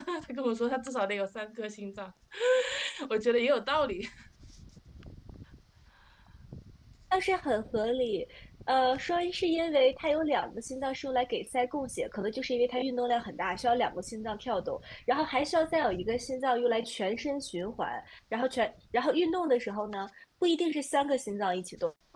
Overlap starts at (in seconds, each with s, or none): none